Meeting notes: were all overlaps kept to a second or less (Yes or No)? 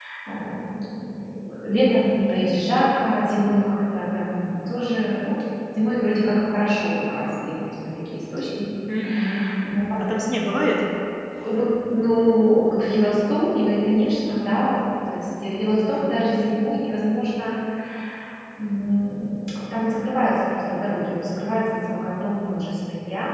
Yes